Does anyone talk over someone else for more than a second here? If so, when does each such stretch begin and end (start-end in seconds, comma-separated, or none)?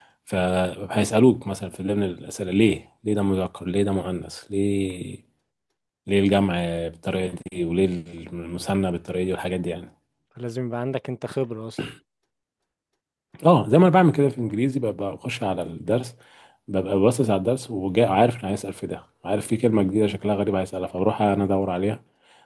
none